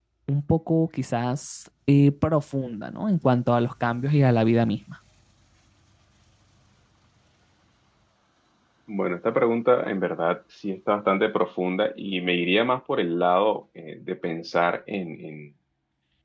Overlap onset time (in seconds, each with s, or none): none